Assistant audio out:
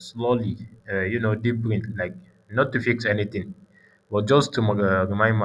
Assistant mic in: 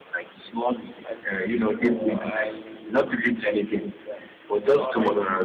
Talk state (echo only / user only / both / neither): both